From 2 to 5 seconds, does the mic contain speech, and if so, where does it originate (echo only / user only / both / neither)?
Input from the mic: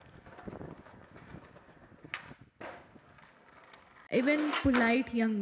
user only